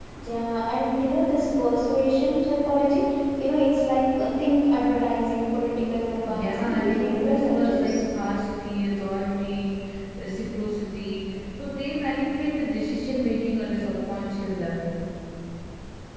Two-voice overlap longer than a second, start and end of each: 6.3-8.0

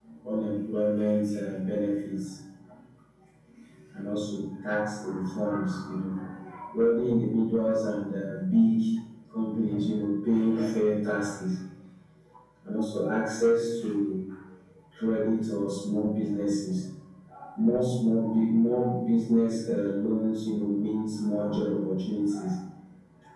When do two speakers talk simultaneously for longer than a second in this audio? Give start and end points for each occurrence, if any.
none

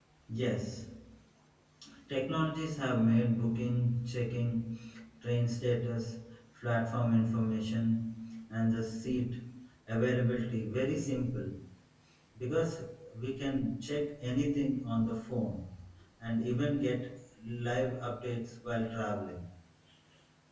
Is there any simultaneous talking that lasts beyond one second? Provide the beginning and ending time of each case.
none

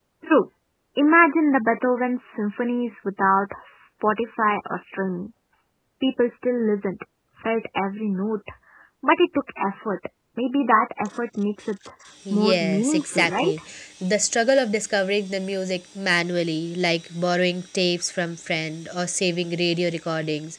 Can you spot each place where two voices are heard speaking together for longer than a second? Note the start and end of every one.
12.3-13.5

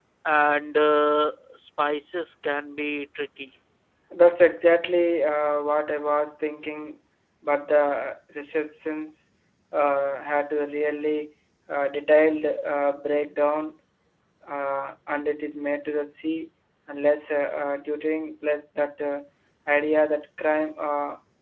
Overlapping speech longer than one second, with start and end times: none

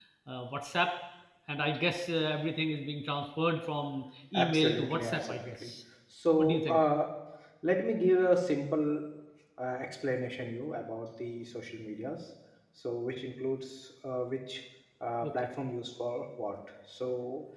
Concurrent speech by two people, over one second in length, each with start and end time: 4.3-5.7

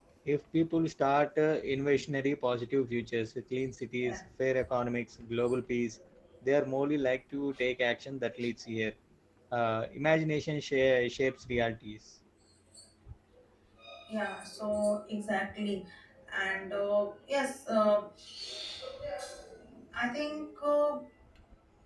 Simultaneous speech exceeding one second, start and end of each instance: none

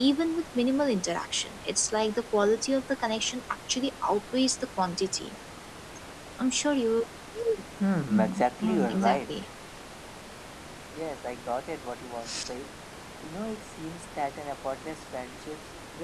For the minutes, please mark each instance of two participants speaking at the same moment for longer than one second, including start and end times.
8.1-9.4

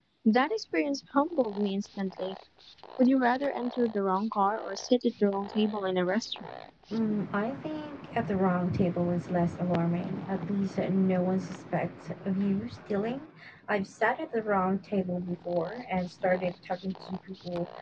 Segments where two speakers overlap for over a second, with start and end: none

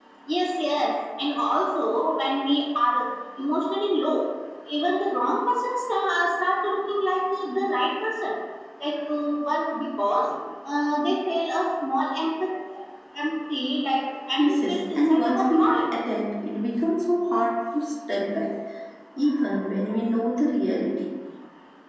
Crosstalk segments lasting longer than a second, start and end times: 14.4-15.9

